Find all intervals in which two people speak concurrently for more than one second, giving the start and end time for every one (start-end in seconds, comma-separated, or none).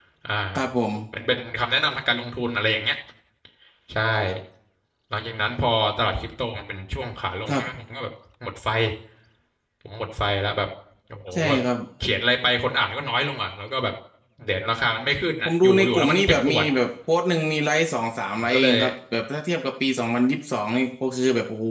15.4-16.6